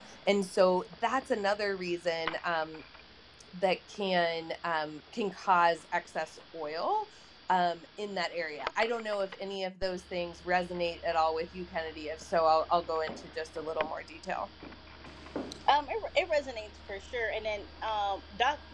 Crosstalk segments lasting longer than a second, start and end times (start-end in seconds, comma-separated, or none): none